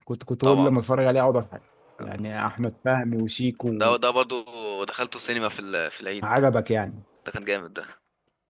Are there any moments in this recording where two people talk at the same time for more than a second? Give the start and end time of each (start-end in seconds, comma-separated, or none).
none